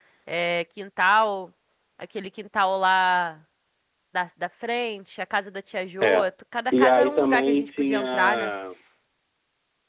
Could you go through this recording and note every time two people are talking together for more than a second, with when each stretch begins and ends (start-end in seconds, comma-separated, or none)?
6.7-8.5